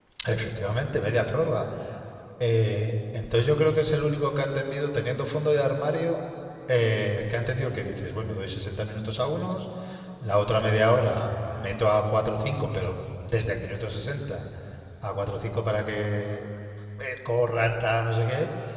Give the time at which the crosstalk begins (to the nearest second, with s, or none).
none